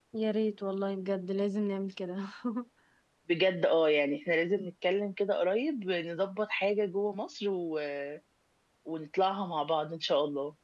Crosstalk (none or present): none